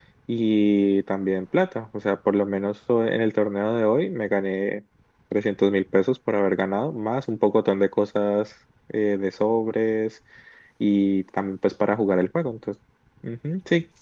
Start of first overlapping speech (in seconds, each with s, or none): none